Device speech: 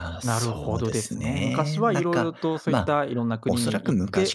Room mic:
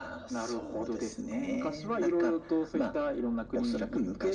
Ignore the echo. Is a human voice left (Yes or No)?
No